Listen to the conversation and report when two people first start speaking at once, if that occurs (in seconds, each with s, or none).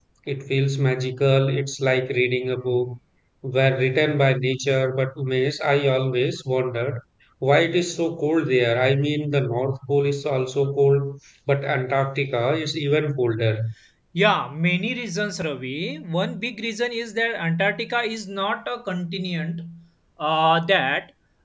none